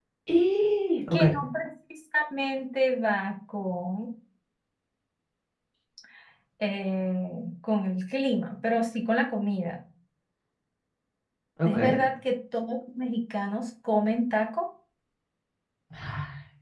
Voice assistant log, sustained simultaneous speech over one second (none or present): none